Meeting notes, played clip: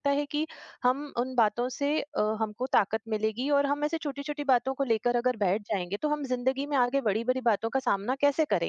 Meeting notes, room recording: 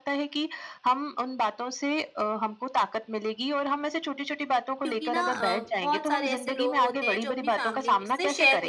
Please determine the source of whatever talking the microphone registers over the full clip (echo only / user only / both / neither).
both